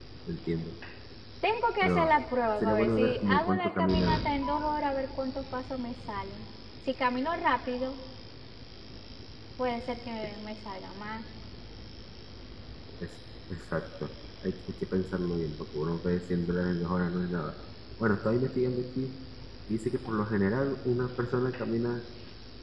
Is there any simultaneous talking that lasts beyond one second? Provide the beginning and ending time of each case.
2.6-4.2

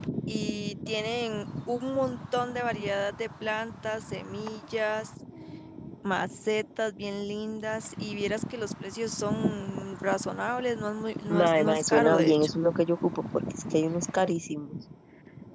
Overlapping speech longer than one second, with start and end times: 11.3-12.6

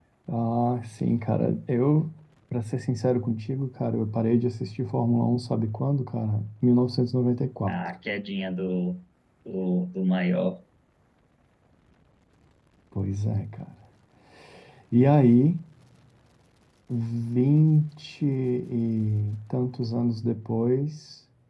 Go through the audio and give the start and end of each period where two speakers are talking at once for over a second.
none

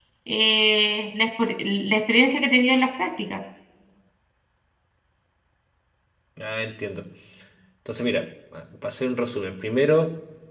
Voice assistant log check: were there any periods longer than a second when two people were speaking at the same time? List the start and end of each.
none

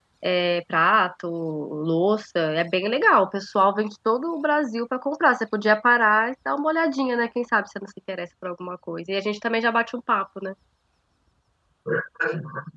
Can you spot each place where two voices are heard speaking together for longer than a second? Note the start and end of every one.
none

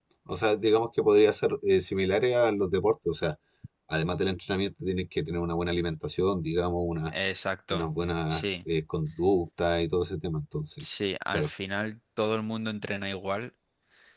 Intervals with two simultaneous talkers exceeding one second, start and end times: none

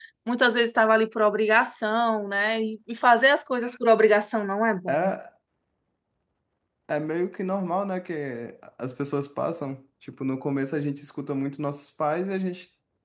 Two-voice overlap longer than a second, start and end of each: none

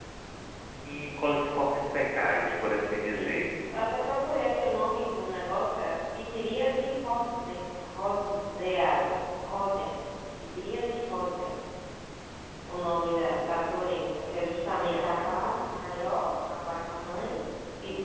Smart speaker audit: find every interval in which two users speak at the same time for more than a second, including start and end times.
14.4-15.7

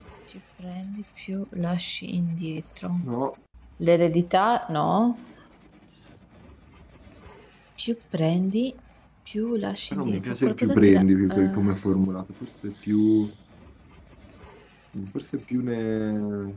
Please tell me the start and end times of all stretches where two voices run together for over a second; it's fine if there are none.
9.9-11.7

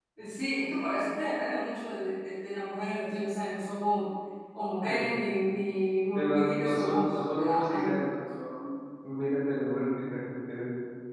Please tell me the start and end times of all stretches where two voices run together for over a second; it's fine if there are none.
6.2-7.9

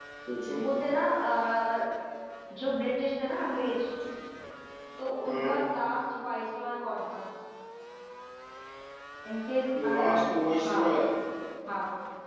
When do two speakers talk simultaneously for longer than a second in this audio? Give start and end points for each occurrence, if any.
none

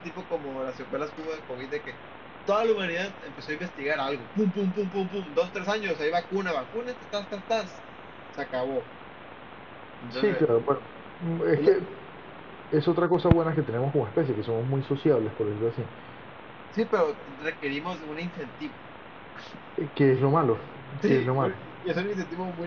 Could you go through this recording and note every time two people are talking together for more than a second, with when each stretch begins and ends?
none

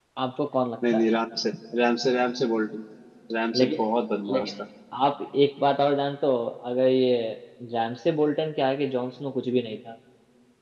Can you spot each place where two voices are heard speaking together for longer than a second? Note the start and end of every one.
none

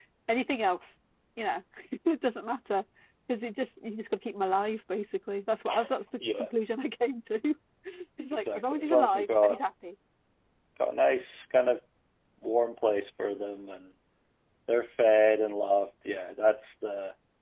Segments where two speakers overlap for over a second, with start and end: 8.3-9.6

